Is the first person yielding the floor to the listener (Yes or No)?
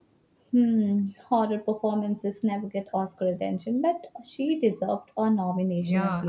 Yes